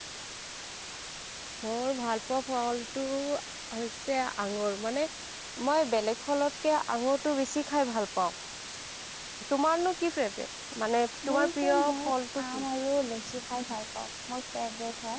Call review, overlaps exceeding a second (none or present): present